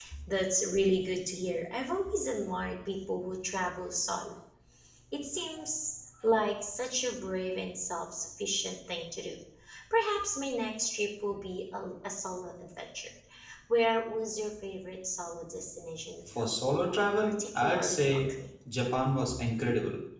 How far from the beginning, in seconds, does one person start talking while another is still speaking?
16.2 s

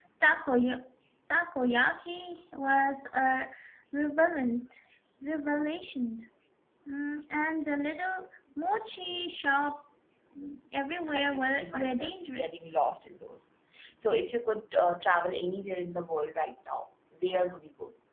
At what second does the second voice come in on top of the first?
11.1 s

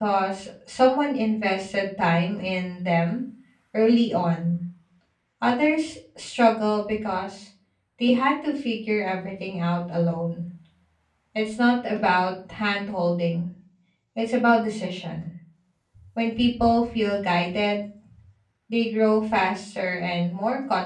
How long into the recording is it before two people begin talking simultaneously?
none

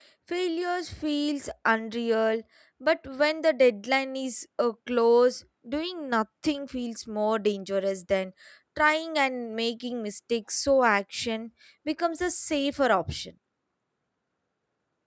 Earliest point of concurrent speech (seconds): none

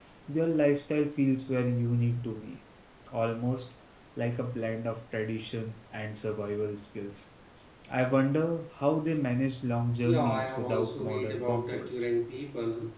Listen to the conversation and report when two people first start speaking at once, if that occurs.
10.0 s

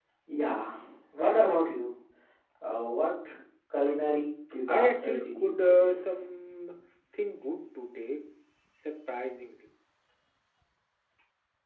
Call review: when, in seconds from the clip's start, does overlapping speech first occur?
4.7 s

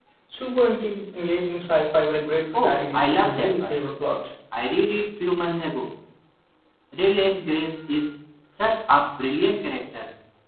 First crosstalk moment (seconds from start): 2.5 s

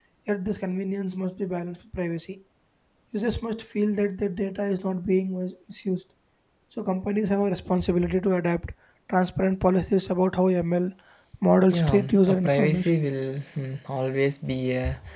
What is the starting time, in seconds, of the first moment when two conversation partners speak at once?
11.7 s

